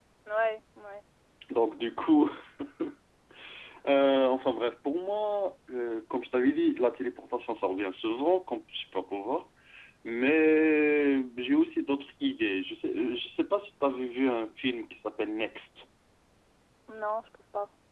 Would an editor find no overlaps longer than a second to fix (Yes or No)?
Yes